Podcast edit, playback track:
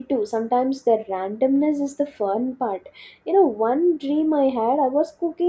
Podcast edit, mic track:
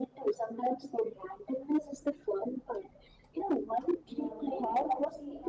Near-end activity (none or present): present